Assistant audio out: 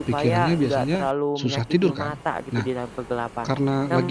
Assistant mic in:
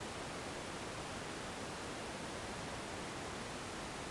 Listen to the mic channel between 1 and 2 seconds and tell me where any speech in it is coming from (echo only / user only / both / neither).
neither